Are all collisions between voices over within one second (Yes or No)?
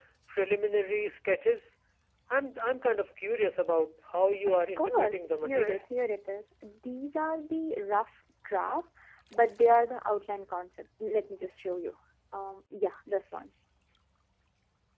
No